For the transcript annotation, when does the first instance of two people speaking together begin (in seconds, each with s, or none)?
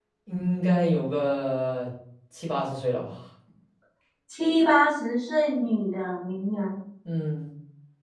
none